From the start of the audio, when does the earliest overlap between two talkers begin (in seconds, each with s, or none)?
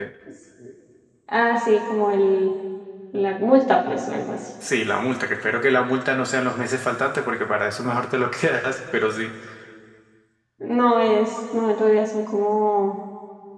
none